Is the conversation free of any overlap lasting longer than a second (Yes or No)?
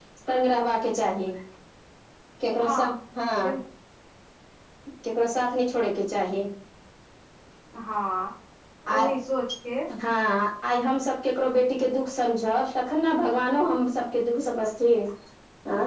Yes